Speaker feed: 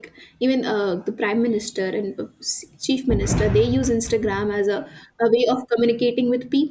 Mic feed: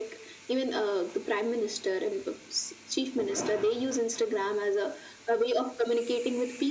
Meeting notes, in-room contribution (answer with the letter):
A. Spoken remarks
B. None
B